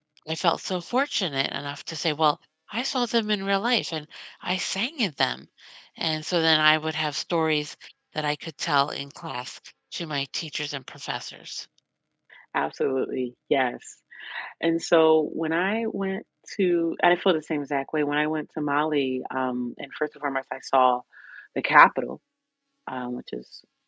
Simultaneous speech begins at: none

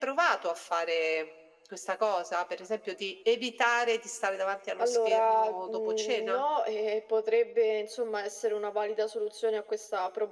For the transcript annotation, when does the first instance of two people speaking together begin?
4.8 s

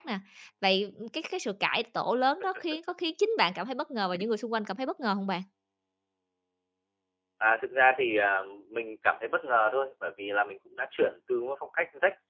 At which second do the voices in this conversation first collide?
none

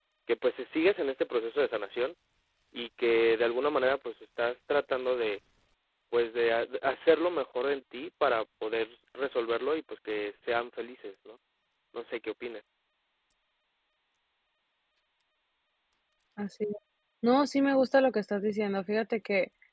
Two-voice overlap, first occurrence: none

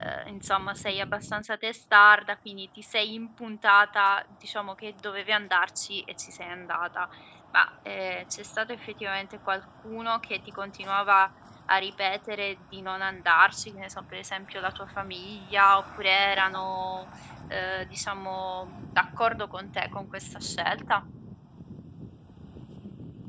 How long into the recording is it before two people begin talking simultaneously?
none

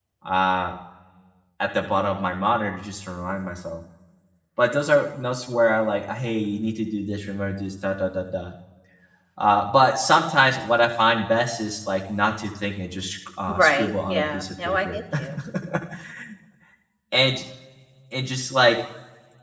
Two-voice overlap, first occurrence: 13.5 s

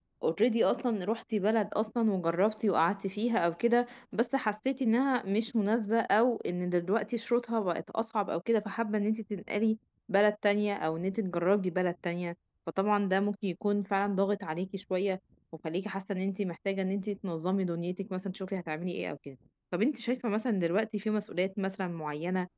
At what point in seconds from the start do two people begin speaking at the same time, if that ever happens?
none

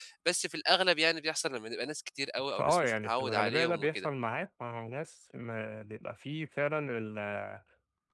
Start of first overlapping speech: 2.6 s

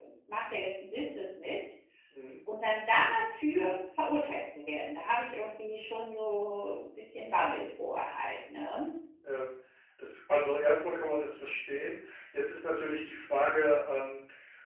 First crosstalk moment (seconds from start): none

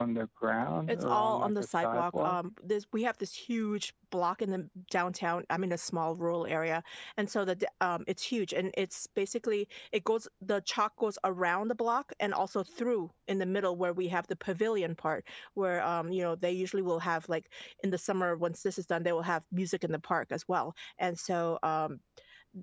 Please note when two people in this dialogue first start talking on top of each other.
0.9 s

